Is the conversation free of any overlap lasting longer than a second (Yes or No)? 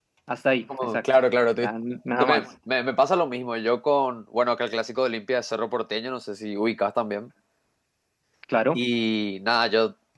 Yes